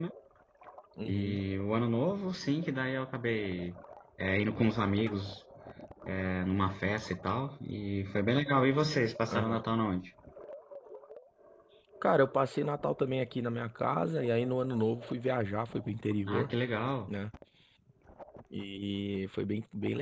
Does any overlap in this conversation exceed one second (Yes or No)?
No